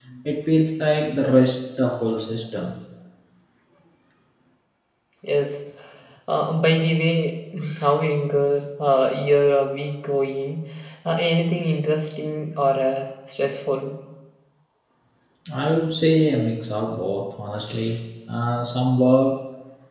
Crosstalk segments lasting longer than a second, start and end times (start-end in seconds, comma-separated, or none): none